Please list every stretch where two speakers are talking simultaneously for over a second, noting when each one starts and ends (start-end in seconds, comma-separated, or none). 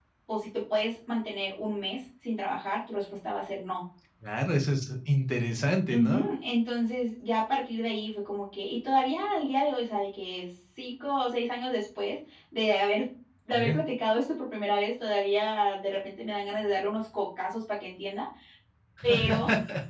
none